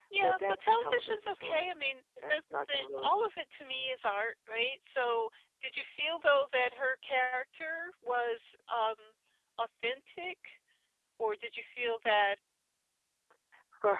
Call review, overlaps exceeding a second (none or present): present